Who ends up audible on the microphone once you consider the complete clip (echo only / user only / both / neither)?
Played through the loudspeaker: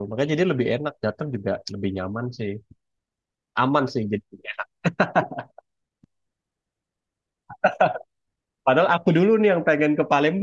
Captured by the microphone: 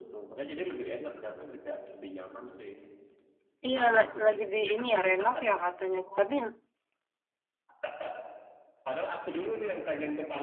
both